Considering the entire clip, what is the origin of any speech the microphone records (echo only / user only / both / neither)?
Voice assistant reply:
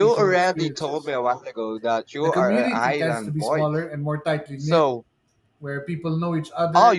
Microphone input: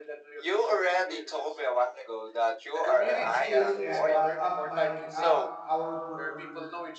both